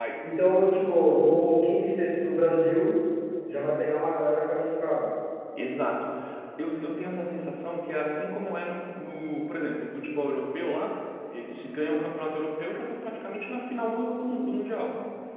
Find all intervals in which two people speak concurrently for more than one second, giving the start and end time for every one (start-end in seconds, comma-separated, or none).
none